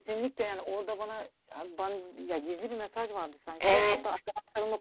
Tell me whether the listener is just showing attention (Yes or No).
Yes